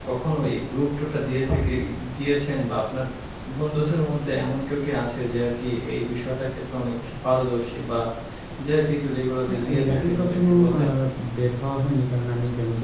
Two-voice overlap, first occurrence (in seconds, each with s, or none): 9.5 s